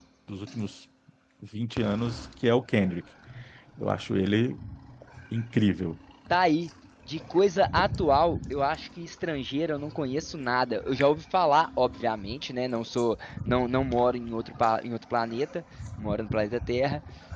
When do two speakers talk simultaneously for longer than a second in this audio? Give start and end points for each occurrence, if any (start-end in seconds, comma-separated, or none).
none